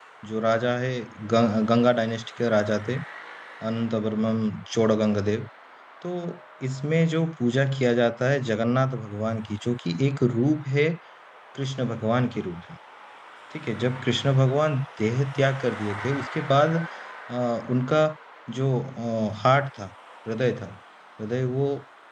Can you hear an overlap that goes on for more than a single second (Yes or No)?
No